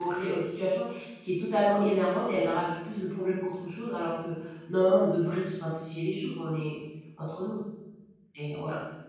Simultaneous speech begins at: none

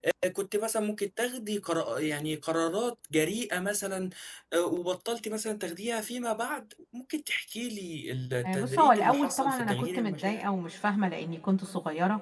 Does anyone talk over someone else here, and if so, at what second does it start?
8.4 s

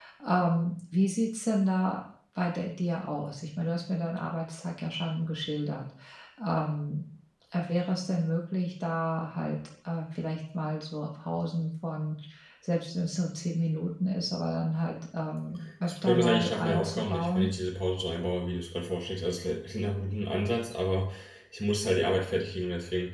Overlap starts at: 15.8 s

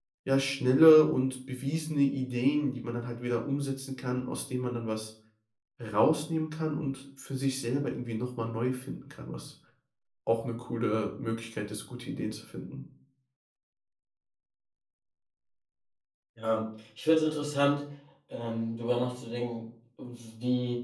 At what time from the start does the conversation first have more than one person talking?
none

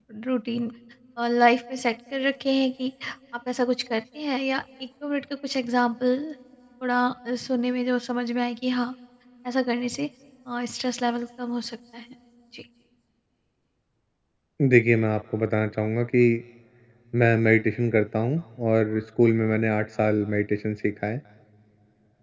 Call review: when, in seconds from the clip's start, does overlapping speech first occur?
none

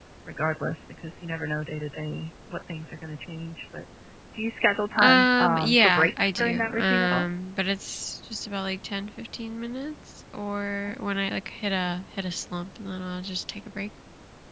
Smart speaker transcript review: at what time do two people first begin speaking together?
5.0 s

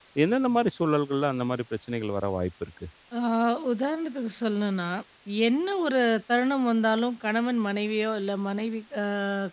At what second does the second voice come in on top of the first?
none

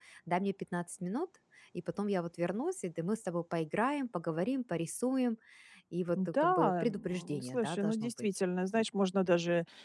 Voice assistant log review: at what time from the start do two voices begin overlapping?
6.4 s

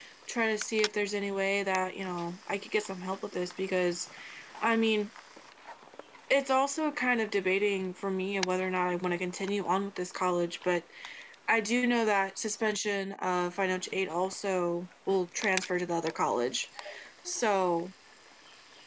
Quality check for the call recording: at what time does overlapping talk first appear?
none

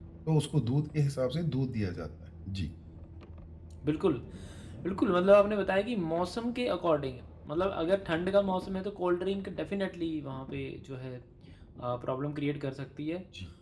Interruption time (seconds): none

